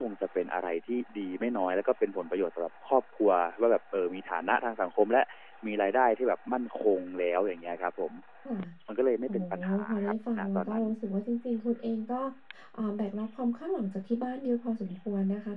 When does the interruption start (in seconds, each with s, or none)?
9.3 s